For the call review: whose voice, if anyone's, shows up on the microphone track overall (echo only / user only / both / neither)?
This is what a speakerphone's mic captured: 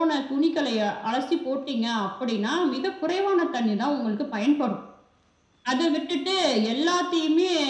echo only